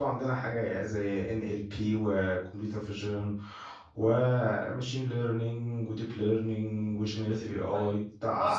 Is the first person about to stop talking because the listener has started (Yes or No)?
Yes